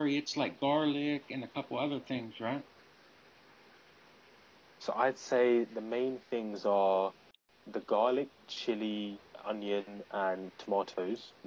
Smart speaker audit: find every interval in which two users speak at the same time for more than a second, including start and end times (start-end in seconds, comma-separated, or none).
none